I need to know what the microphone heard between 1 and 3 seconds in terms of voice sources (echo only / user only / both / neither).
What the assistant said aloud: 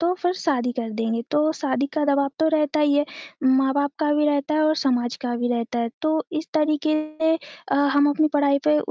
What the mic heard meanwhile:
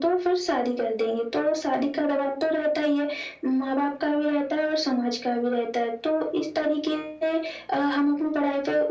echo only